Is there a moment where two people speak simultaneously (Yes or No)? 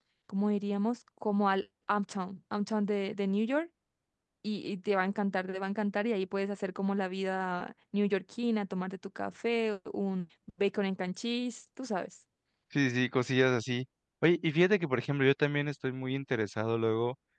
No